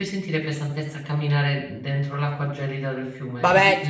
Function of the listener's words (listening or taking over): taking over